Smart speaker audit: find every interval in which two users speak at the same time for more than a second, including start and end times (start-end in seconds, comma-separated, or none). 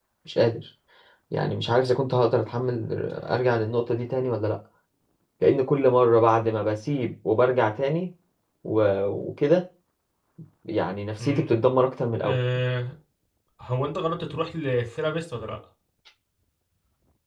none